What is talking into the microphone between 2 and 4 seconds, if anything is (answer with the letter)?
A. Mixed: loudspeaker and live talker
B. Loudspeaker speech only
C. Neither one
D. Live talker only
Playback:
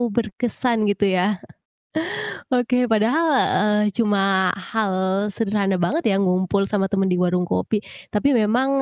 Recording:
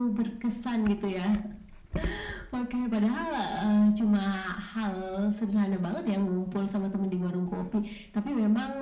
B